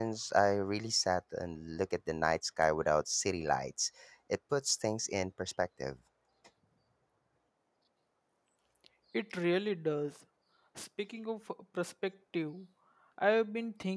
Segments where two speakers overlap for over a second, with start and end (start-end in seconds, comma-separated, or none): none